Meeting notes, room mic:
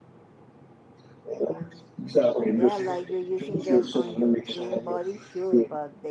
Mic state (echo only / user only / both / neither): both